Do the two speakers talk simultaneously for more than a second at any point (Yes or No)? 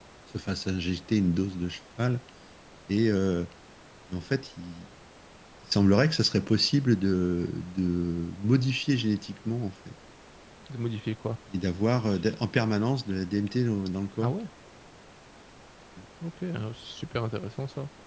No